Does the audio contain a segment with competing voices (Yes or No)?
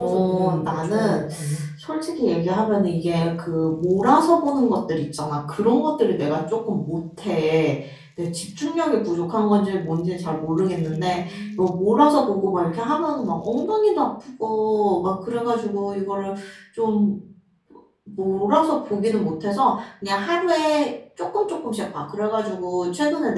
Yes